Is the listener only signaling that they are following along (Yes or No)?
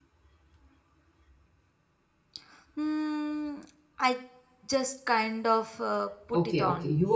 No